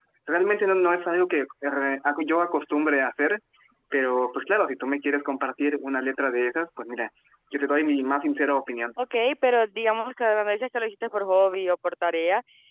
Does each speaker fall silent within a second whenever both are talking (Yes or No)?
Yes